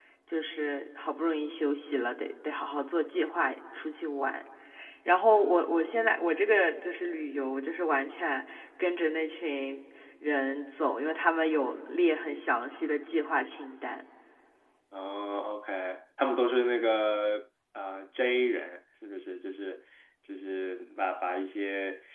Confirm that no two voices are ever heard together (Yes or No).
Yes